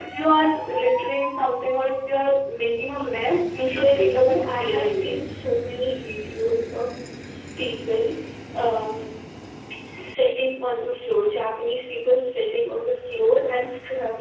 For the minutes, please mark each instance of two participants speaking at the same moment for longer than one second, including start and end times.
3.6-5.2

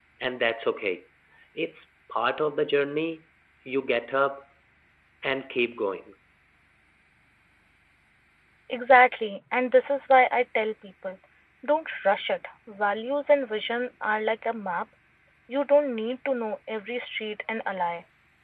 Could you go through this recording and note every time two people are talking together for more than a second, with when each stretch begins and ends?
none

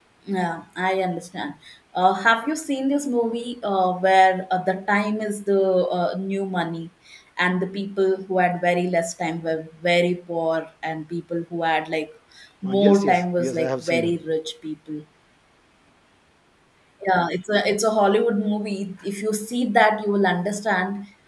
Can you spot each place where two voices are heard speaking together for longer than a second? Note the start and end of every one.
12.7-14.1

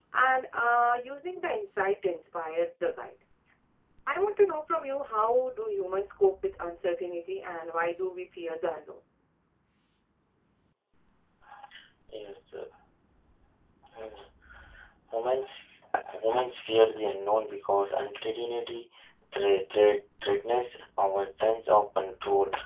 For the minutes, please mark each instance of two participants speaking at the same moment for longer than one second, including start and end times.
none

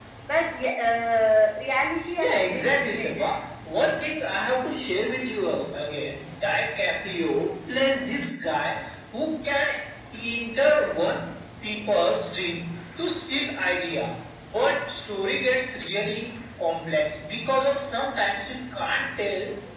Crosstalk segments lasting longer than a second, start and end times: 2.2-3.4

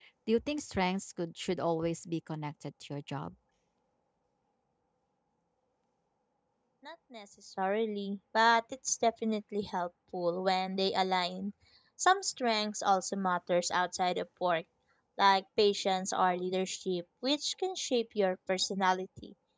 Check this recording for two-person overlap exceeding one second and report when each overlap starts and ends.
none

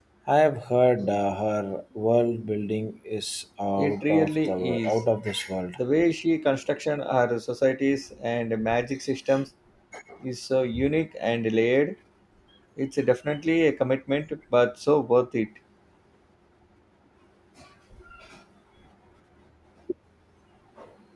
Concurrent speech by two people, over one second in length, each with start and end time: 3.8-5.0

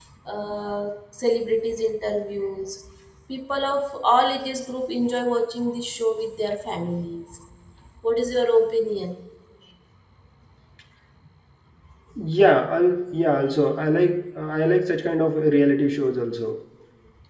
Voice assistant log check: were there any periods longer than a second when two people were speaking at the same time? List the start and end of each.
none

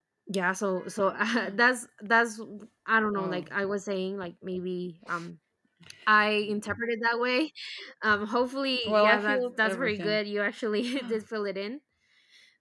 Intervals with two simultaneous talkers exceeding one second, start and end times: 8.8-10.2

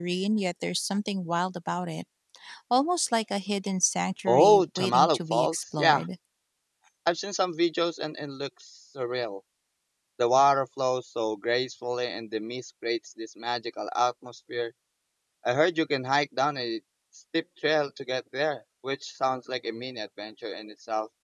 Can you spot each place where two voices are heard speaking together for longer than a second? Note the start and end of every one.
4.3-6.0

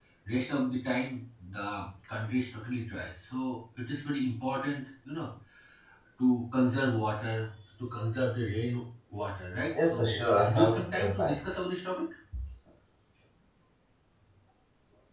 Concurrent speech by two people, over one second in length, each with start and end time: 9.7-11.4

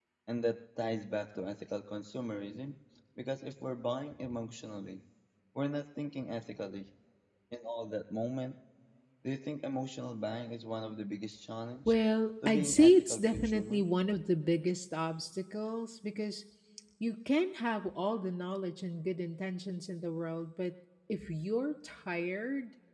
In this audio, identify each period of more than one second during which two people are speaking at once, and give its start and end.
12.4-13.9

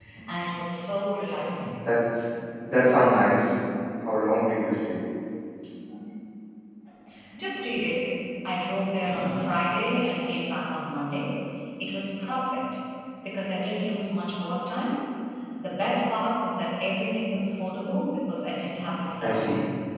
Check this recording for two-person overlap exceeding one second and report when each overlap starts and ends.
none

